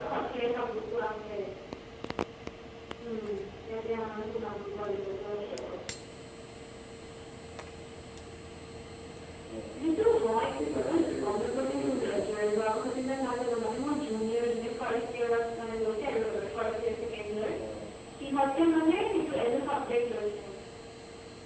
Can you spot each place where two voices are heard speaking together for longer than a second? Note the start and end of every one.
10.8-12.1

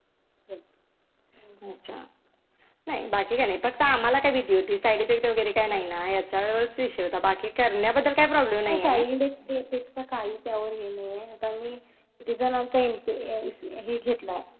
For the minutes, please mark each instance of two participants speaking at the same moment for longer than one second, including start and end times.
none

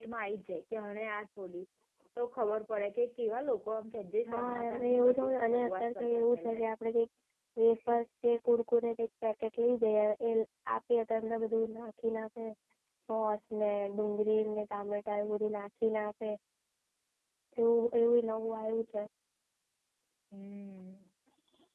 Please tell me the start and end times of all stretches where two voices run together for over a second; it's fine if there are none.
4.3-6.7

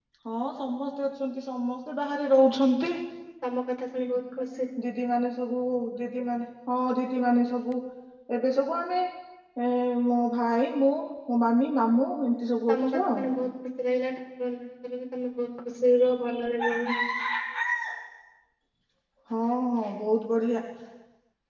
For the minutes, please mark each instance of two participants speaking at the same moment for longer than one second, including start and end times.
none

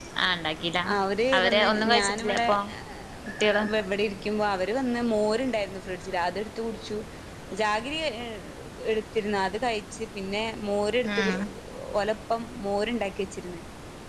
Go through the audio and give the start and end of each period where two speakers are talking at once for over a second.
1.4-2.6

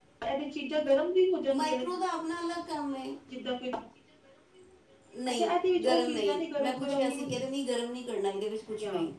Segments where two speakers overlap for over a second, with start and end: 5.4-7.4

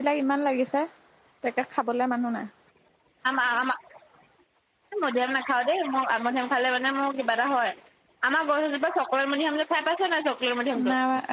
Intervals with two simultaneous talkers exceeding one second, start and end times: none

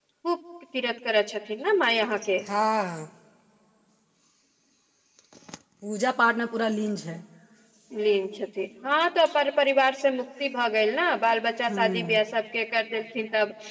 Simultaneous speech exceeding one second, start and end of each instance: none

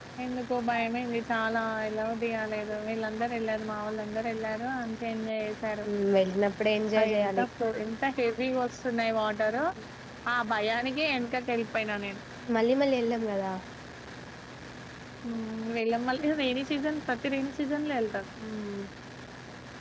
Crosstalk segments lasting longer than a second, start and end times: none

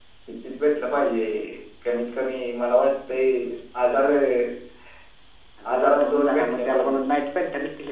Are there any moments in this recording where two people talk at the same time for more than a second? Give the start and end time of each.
5.7-7.0

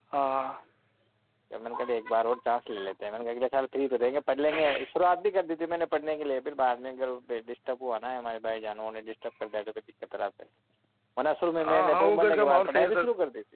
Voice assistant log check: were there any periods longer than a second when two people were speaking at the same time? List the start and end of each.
11.7-13.0

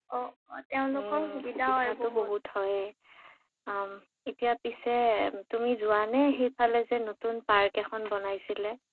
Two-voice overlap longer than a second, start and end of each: 1.0-2.3

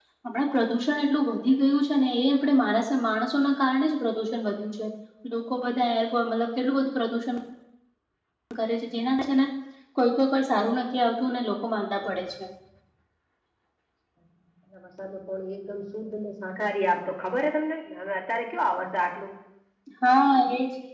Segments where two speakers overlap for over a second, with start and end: none

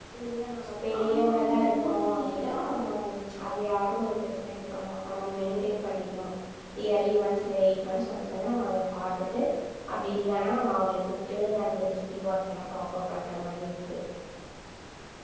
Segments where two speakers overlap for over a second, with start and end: 1.1-2.8

